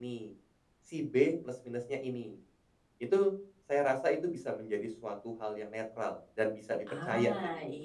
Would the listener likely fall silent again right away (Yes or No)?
No